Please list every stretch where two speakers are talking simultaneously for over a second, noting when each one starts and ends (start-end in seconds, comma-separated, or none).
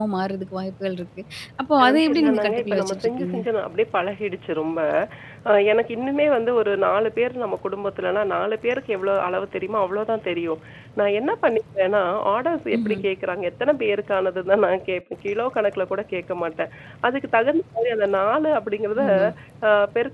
1.8-3.4